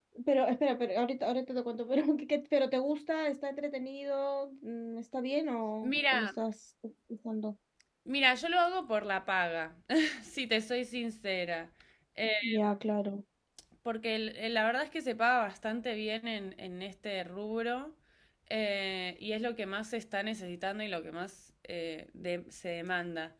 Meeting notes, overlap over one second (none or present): none